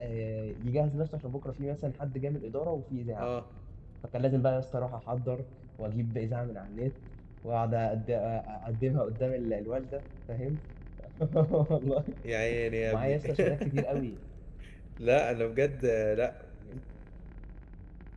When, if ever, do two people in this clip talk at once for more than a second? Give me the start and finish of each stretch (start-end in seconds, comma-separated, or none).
none